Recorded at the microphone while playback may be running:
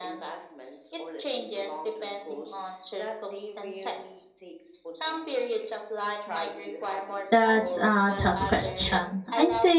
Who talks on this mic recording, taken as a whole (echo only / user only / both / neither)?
both